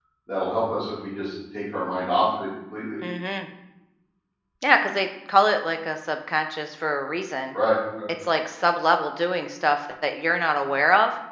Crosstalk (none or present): none